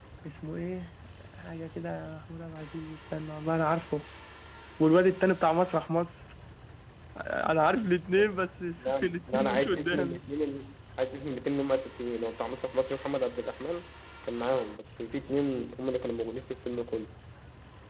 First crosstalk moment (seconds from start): 8.8 s

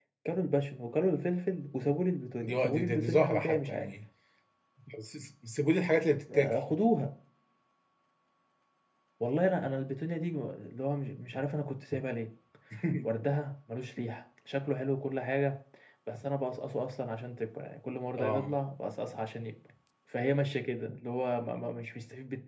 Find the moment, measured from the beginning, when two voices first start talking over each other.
2.4 s

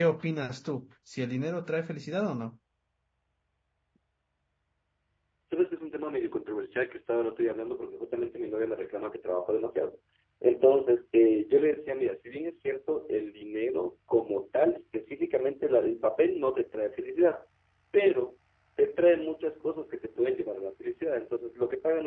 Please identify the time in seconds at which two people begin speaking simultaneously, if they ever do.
none

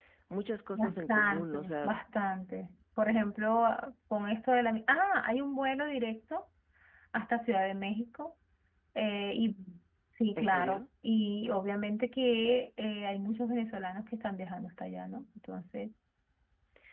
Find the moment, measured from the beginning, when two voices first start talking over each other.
0.7 s

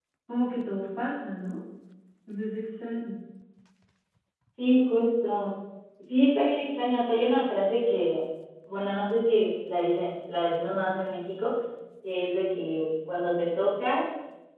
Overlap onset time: none

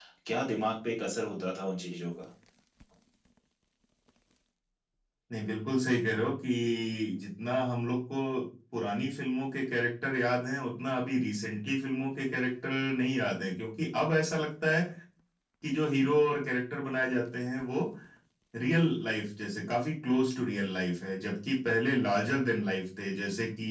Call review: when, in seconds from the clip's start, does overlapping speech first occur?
none

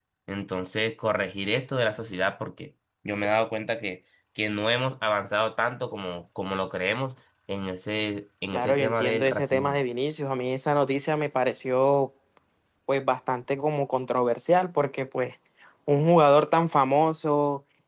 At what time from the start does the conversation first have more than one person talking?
8.5 s

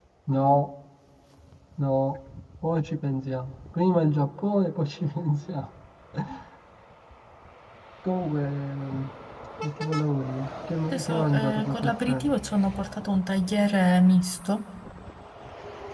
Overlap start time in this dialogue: 10.9 s

